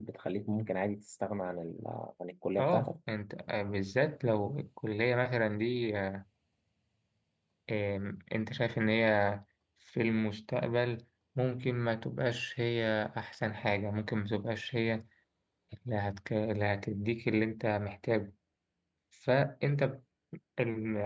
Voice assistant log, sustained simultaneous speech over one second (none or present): none